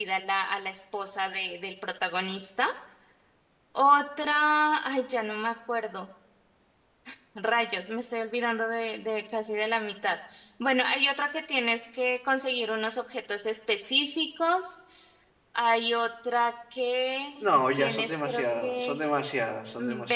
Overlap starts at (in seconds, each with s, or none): 17.8 s